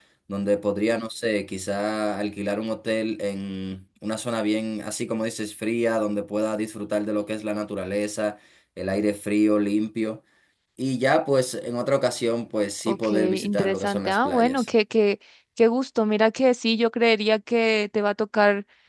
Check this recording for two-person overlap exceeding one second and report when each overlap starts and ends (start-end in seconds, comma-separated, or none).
12.9-14.7